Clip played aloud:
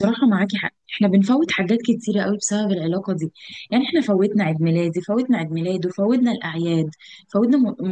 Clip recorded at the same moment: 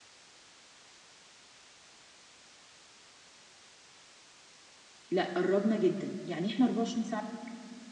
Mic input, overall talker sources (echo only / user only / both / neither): user only